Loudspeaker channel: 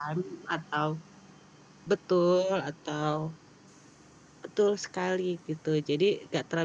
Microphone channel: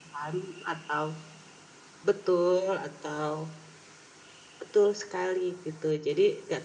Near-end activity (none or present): none